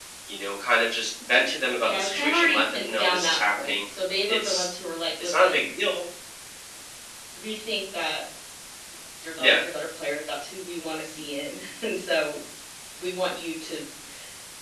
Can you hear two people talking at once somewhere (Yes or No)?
Yes